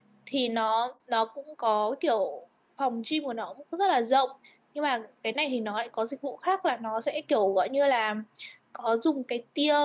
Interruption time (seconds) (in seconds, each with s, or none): none